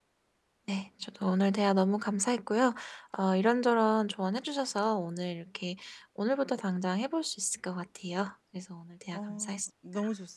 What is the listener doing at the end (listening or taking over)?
taking over